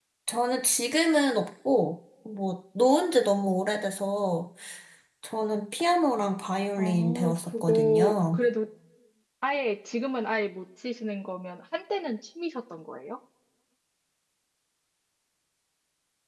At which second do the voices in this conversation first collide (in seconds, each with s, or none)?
6.8 s